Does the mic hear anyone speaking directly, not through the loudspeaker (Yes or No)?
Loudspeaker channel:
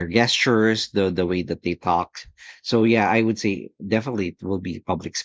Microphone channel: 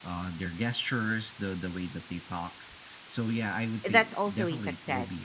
Yes